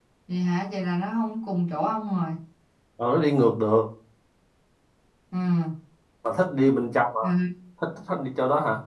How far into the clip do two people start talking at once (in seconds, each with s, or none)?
none